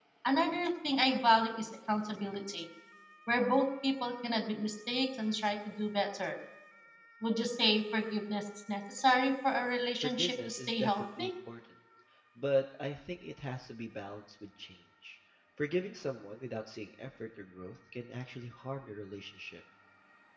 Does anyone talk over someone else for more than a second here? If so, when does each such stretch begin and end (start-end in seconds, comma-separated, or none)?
10.0-11.3